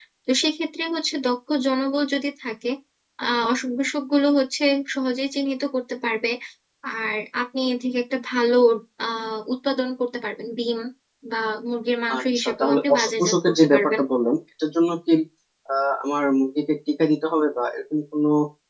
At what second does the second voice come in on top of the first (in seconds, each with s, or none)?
12.2 s